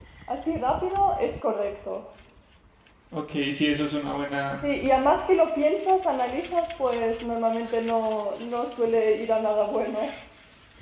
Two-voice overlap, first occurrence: none

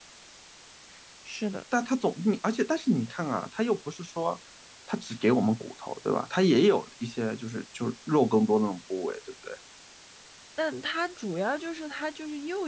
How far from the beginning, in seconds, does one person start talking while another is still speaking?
none

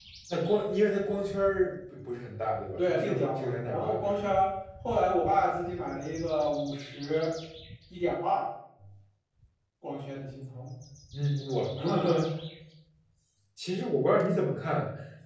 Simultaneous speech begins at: 2.7 s

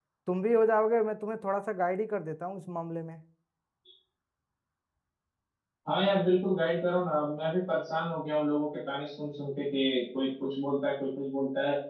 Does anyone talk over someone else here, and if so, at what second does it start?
none

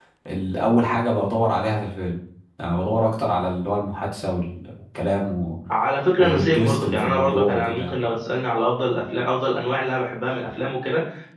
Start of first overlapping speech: 6.2 s

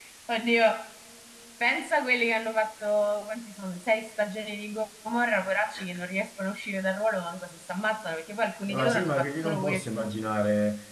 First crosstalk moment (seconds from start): 8.7 s

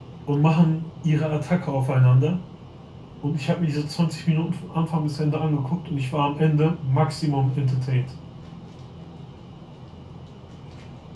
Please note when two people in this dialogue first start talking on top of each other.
none

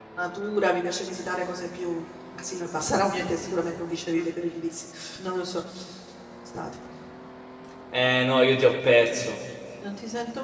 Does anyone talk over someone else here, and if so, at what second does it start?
none

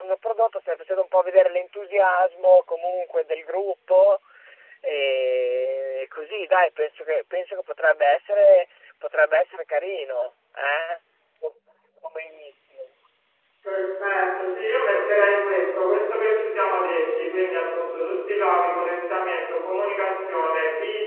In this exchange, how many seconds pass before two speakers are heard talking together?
none

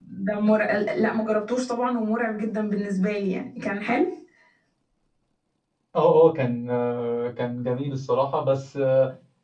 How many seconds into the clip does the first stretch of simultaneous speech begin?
none

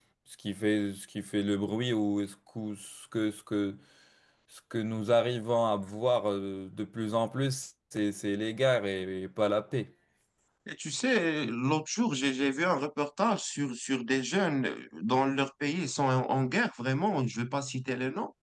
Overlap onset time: none

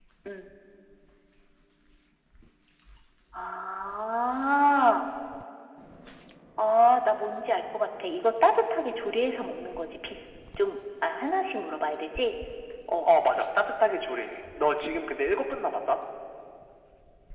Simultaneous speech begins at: none

